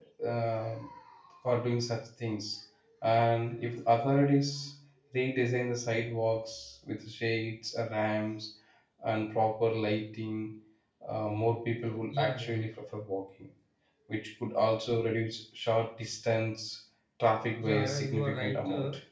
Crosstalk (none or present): present